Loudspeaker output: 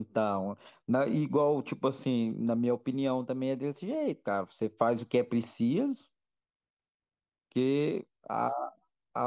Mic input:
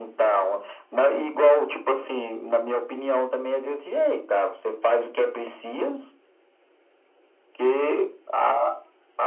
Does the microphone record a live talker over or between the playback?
No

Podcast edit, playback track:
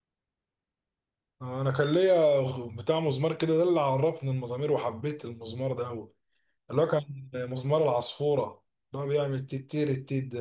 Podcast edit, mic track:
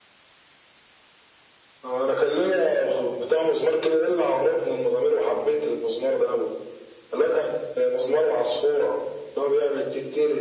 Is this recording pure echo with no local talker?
Yes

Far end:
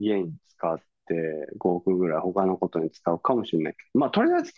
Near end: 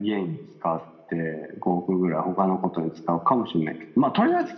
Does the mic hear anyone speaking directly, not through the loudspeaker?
No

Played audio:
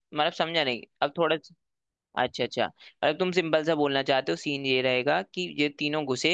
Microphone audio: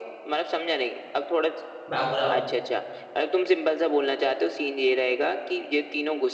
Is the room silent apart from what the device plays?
No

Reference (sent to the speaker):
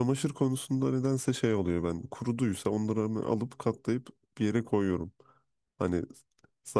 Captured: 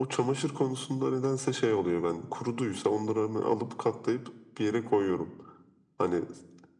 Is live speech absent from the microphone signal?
Yes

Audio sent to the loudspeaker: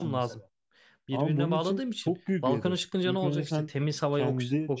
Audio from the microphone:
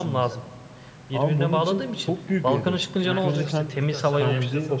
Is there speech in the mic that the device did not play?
Yes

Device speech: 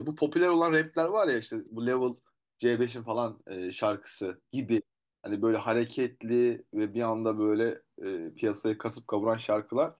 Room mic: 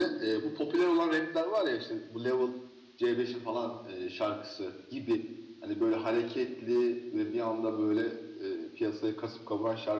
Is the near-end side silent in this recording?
Yes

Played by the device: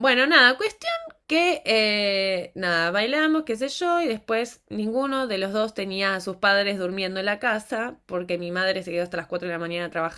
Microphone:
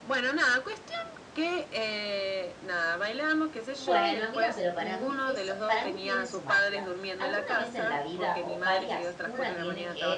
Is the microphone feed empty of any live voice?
No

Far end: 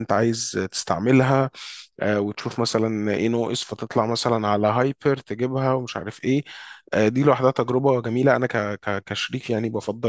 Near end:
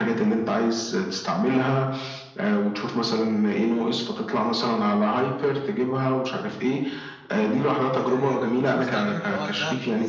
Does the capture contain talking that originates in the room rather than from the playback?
Yes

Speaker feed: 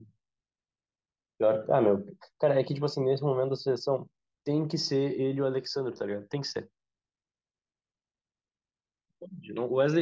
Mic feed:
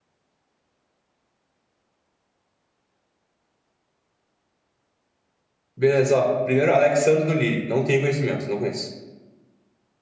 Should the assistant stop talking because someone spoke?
Yes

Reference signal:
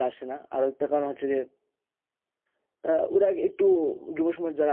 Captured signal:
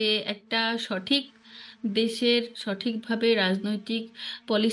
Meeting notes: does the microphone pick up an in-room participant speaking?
Yes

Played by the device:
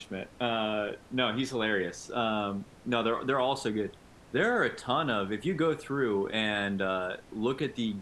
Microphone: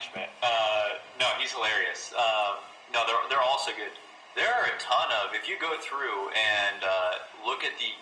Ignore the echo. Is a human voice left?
No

